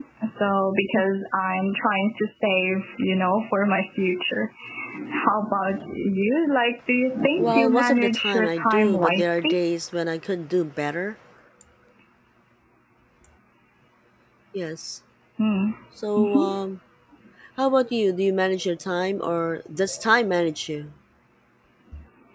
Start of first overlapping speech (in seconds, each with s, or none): 7.4 s